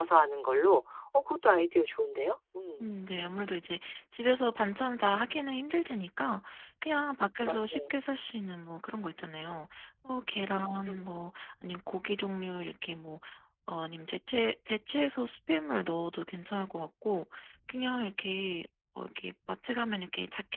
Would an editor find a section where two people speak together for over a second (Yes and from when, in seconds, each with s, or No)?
No